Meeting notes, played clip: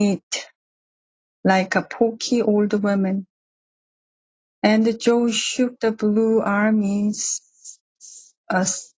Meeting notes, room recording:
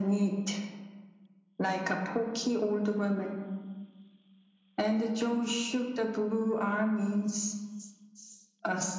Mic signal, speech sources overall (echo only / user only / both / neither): echo only